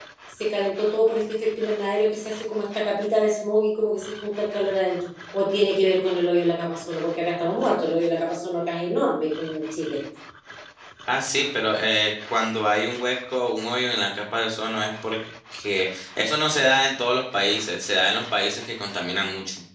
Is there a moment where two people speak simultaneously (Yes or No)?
No